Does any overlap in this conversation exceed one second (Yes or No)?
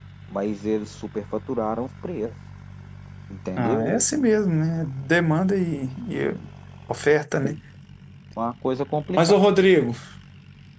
No